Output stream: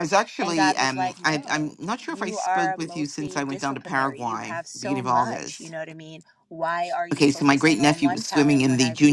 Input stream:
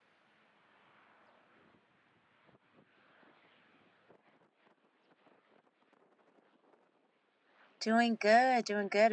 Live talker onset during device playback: 7.8 s

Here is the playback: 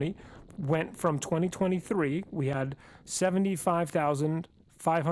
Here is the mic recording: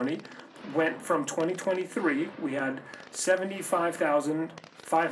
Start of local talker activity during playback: none

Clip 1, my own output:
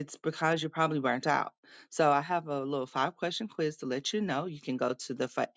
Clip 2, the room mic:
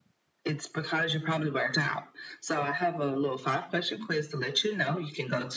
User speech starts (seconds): none

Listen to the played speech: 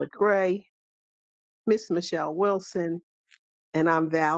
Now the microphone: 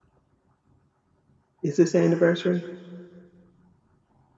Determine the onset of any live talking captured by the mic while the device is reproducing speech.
1.6 s

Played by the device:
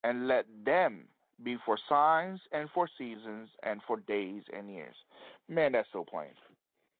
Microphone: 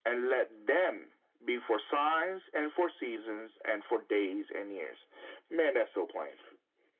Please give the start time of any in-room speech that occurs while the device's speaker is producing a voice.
none

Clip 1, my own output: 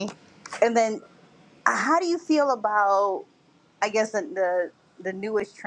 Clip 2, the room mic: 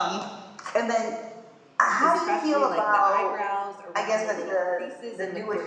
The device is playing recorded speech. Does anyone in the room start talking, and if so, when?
2.0 s

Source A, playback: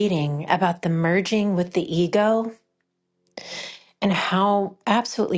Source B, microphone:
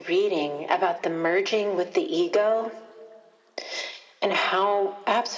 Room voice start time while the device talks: none

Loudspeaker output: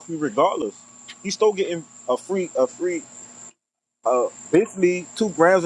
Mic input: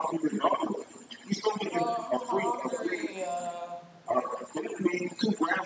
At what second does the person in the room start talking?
1.7 s

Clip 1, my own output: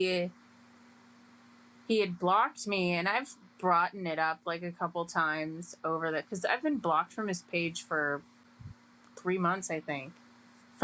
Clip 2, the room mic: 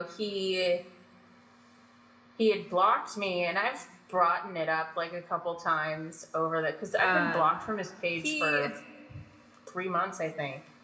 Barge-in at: 7.0 s

